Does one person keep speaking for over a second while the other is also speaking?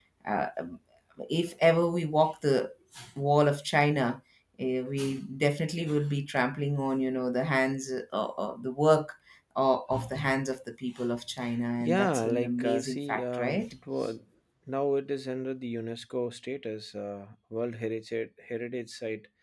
Yes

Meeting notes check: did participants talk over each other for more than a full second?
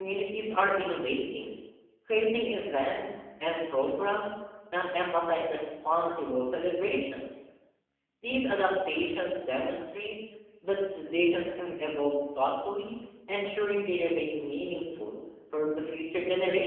No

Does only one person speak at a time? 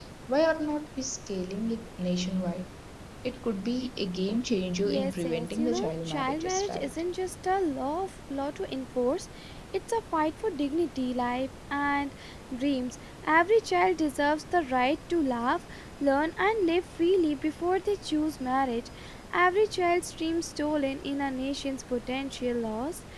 No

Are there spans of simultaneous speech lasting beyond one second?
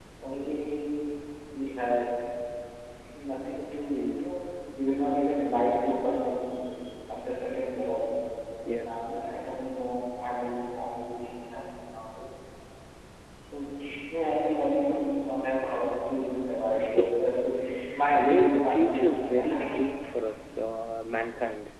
Yes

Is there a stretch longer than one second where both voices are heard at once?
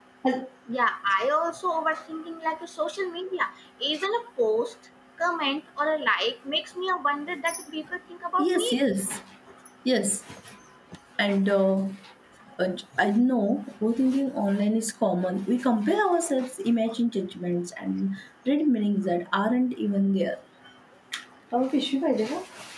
No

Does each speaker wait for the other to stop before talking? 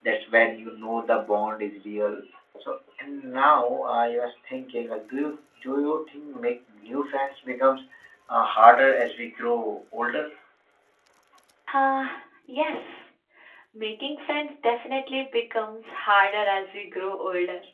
Yes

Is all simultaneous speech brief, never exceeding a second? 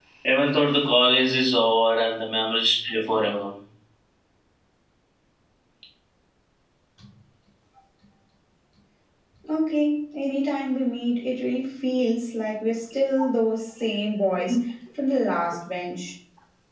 Yes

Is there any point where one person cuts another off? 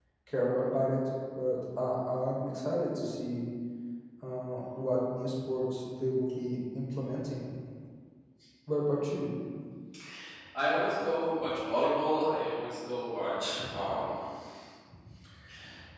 No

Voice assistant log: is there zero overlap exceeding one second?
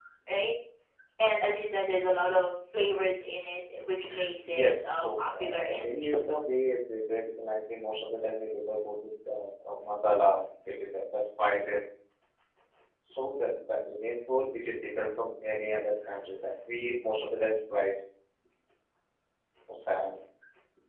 No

